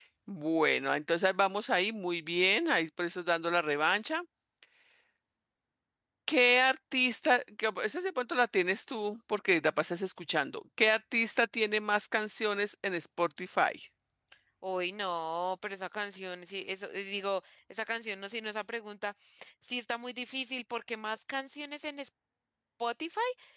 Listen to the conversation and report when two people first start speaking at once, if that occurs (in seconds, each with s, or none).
none